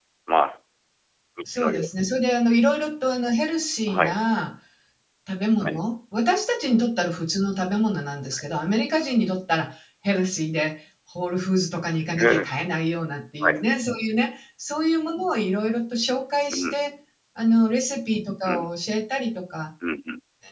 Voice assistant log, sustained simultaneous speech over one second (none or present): none